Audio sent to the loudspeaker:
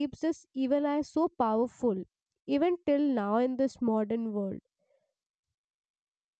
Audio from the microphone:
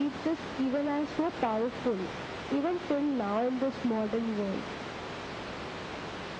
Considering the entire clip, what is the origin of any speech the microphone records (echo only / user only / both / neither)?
echo only